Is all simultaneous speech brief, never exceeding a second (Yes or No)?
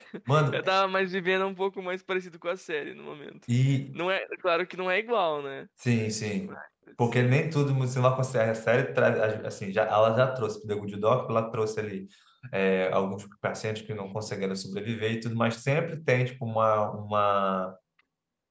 Yes